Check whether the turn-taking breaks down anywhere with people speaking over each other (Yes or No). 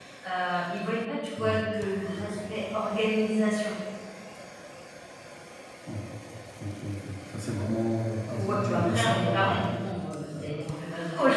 Yes